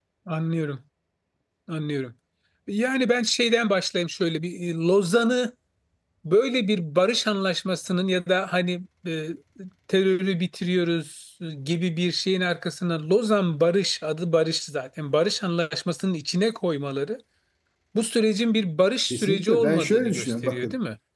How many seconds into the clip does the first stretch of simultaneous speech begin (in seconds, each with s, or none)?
19.1 s